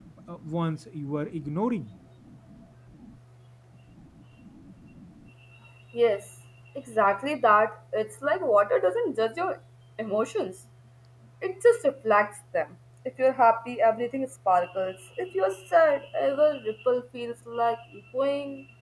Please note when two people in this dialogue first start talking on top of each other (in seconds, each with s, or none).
none